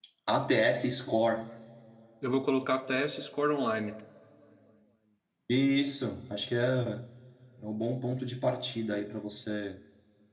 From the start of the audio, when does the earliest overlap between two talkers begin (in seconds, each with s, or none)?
none